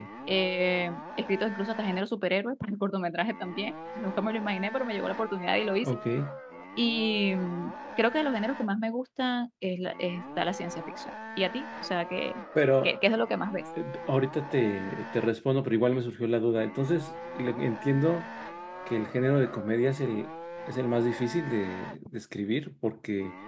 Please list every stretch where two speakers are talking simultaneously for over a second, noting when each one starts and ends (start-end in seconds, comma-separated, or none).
none